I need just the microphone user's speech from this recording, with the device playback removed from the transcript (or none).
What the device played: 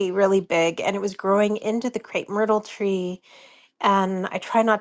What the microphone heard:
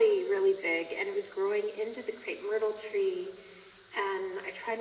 none